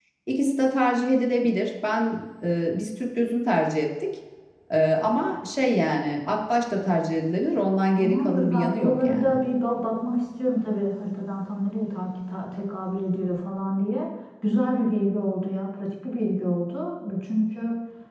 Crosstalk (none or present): present